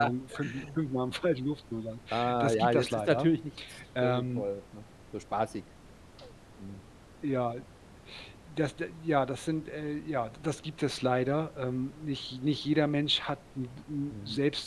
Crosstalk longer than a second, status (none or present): present